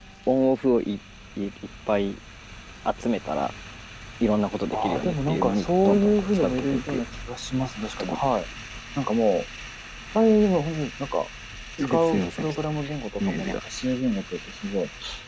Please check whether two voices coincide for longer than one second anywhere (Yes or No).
Yes